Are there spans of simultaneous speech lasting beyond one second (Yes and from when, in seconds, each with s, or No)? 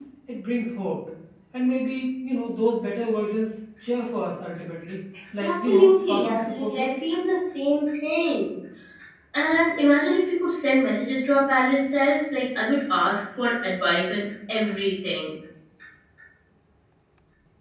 Yes, from 5.4 s